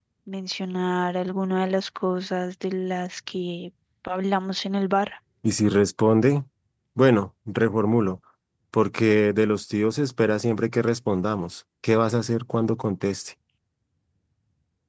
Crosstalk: none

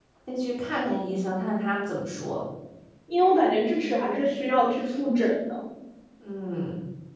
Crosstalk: none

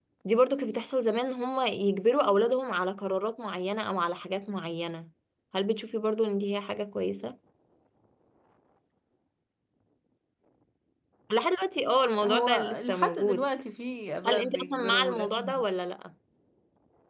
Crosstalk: present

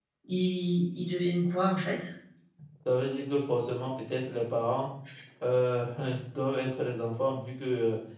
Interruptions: none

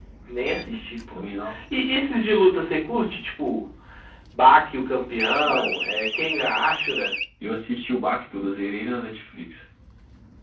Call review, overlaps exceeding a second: none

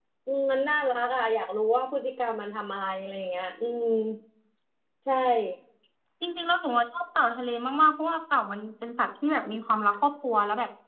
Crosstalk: none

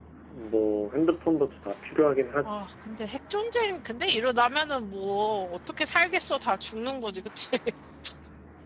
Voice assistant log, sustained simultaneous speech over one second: none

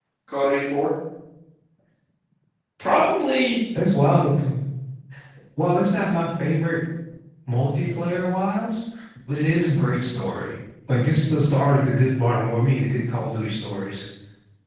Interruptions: none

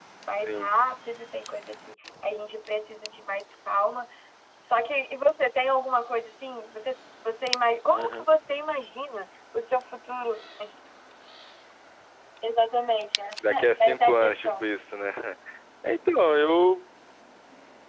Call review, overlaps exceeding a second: present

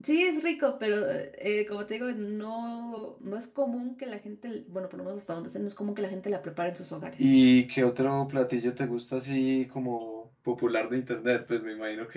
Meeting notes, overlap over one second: none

